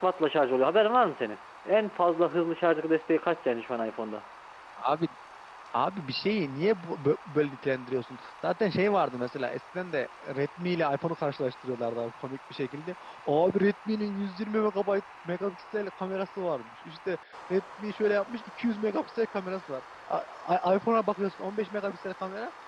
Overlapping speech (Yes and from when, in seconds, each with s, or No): No